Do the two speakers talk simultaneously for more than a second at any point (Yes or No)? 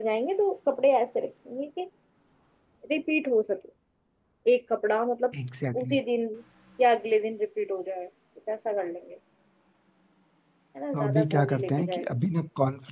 Yes